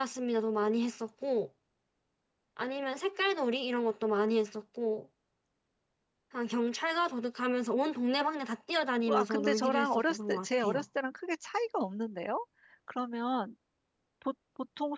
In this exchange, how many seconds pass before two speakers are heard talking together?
9.0 s

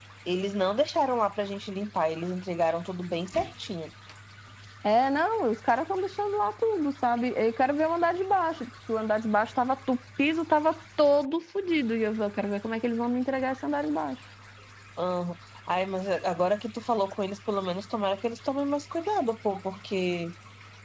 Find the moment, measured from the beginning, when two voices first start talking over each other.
none

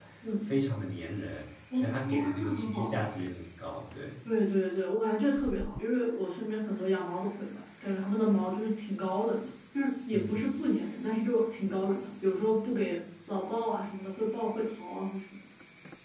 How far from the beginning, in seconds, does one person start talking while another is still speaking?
1.8 s

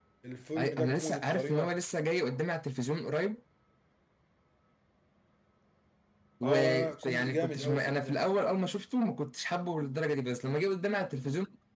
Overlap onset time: 0.6 s

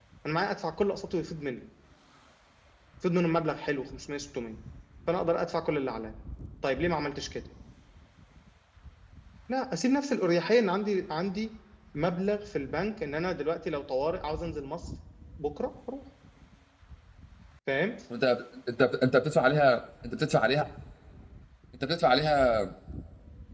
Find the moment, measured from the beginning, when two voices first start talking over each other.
none

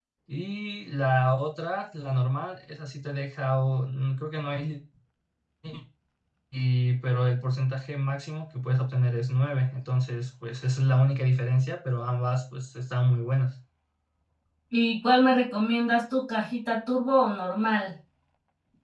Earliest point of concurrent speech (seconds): none

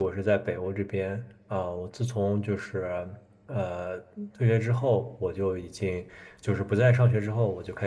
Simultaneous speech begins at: none

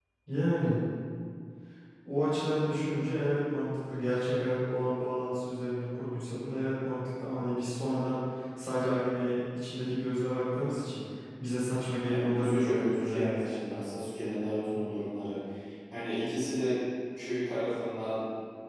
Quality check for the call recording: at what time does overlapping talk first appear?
12.0 s

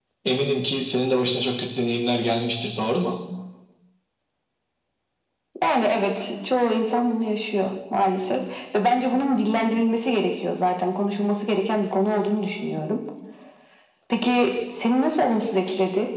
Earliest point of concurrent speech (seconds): none

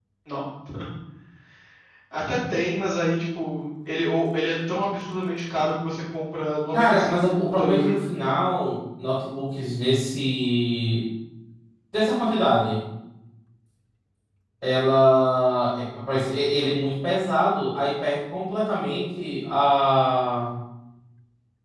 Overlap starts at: 6.7 s

